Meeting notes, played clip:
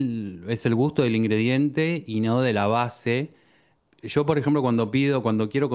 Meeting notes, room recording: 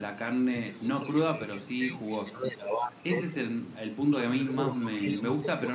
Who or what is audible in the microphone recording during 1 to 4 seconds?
both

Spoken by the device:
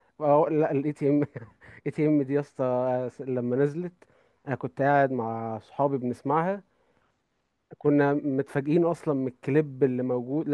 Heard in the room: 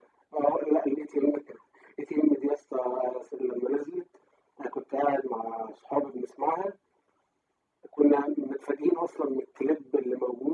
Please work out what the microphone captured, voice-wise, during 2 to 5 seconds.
echo only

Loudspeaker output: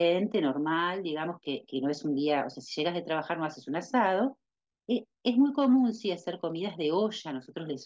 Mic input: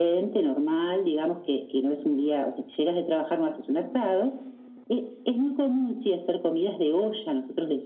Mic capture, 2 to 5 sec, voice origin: echo only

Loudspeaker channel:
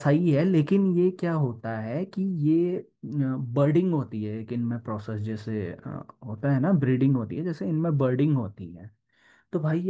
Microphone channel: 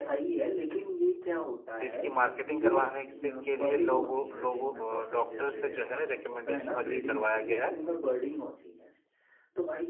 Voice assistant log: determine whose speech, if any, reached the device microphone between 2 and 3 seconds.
both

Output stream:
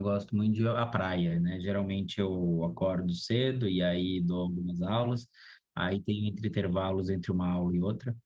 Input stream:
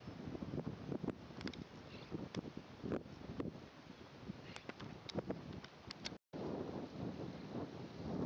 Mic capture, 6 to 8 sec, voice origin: neither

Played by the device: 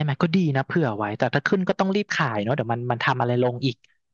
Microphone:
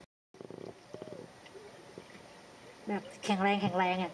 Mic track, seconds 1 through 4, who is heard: user only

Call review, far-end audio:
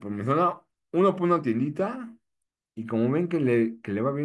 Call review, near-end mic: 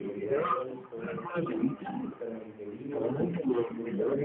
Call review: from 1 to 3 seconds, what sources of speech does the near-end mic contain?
both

